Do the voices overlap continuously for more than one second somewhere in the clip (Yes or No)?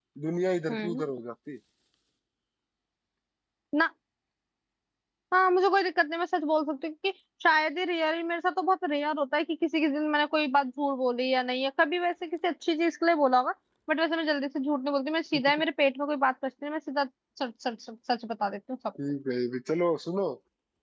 No